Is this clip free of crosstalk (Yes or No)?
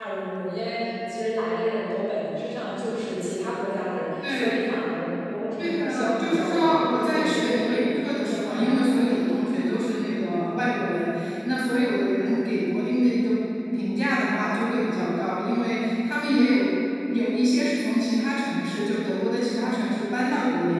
No